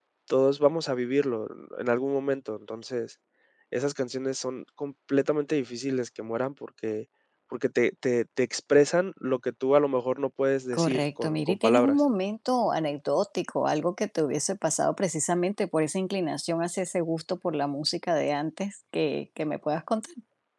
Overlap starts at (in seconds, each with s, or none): 10.7 s